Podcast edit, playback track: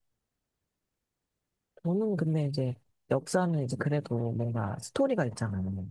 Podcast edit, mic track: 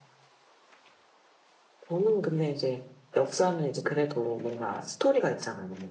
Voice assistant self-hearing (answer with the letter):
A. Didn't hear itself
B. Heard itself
B